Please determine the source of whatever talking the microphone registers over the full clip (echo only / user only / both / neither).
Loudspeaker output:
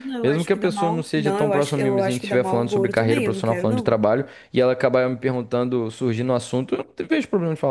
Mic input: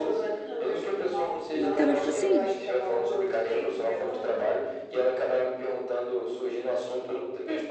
both